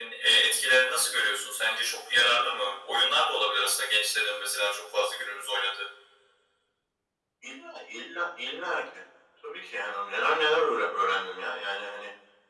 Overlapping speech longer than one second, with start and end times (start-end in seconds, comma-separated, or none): none